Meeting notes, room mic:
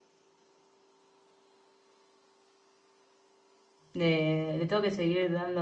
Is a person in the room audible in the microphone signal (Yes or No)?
Yes